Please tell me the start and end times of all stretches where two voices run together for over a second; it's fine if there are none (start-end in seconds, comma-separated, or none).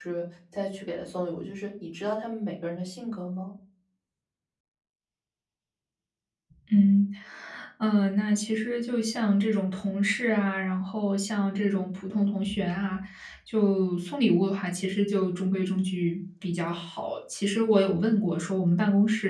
none